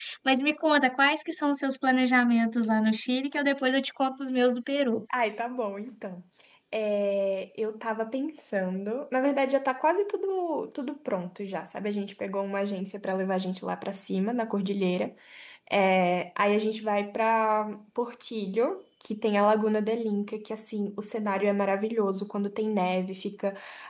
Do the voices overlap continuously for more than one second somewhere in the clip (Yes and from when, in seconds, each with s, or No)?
No